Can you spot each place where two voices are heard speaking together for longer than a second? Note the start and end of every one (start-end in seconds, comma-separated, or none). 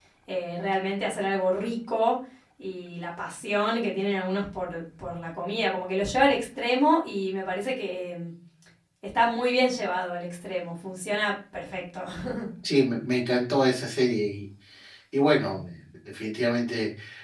none